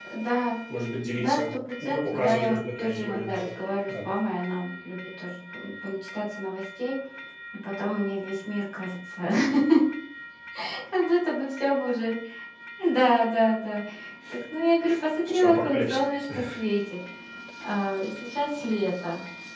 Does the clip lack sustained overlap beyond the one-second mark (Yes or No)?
No